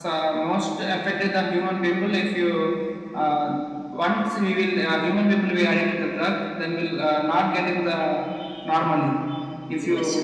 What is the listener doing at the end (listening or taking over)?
listening